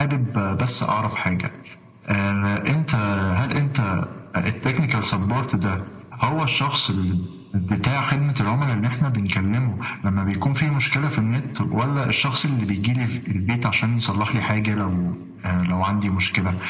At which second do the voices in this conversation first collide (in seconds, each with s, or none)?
none